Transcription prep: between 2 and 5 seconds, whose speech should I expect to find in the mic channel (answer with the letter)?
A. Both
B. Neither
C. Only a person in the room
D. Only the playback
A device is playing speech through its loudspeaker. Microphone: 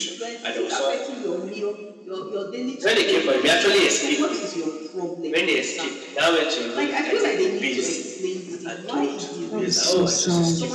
D